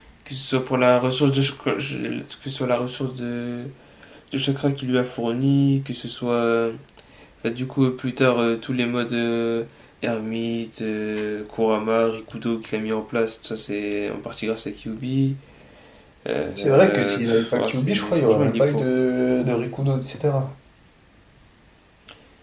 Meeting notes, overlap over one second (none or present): present